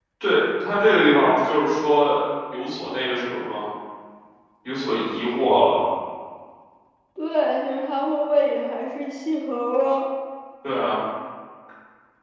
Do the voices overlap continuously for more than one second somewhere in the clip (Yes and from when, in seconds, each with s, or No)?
No